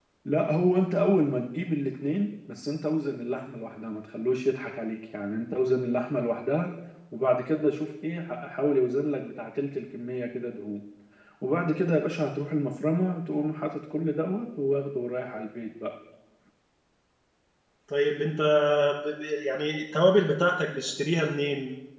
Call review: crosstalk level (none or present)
none